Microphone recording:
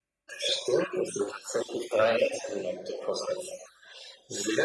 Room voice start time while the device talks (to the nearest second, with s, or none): none